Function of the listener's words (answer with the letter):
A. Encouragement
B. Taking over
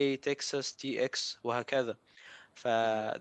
A